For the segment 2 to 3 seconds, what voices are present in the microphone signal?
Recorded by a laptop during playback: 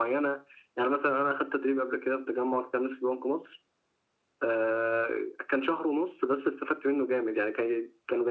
echo only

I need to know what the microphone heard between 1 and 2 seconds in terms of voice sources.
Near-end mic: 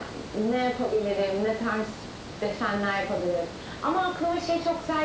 echo only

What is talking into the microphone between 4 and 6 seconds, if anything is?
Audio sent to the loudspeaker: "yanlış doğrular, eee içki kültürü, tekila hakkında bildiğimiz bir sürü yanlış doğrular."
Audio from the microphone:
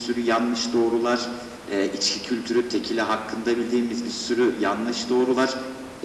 echo only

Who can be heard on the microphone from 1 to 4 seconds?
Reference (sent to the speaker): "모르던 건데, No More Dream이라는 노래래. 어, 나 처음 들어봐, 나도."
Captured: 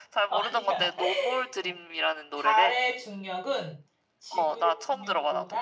both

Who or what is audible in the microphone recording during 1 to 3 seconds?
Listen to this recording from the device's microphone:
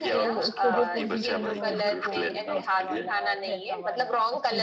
both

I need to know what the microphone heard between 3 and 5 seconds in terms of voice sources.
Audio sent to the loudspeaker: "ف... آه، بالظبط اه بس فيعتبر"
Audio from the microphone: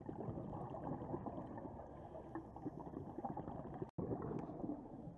neither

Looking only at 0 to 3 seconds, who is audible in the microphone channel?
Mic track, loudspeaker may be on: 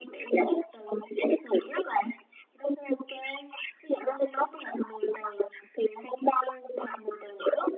echo only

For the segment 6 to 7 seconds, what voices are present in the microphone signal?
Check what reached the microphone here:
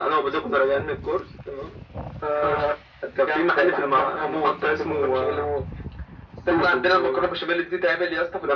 echo only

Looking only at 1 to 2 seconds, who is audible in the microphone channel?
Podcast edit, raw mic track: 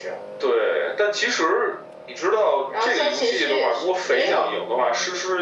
echo only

